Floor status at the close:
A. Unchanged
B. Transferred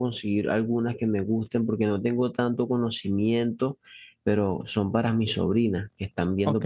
A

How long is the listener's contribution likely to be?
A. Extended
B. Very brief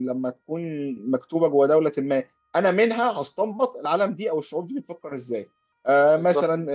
B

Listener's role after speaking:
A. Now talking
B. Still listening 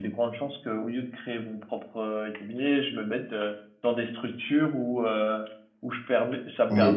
B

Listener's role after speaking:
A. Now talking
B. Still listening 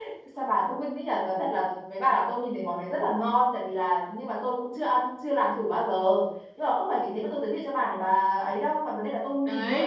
B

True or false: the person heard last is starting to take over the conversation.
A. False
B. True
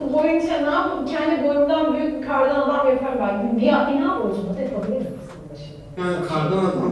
B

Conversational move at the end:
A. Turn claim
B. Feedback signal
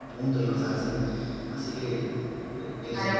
A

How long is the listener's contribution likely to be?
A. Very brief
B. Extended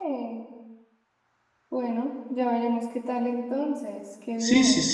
B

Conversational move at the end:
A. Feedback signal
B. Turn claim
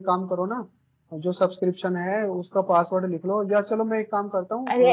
B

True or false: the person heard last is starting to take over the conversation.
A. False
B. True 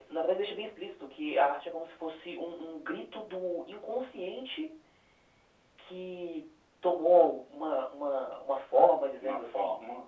B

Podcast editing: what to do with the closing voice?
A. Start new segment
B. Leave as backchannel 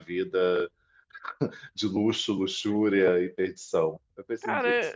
A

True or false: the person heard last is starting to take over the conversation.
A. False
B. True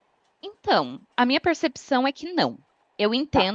A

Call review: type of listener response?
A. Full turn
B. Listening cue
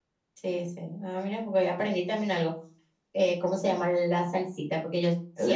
B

